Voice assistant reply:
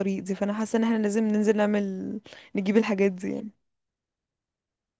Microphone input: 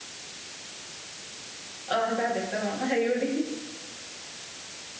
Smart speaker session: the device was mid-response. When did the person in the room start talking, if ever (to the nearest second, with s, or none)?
2 s